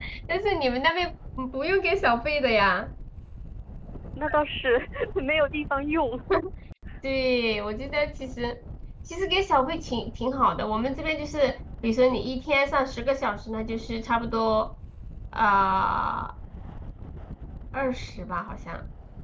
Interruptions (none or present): none